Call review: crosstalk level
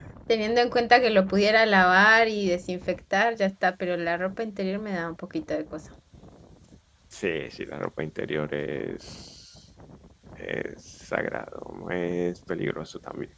none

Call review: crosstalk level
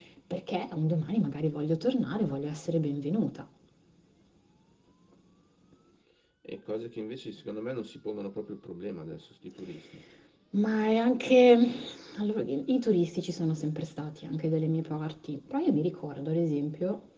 none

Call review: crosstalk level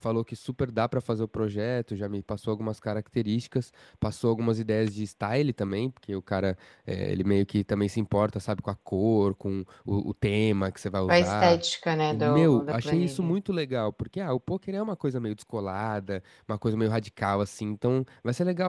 present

